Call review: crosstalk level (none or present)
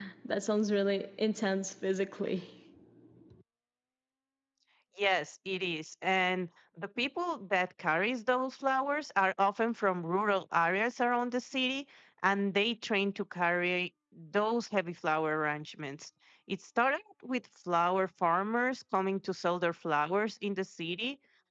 none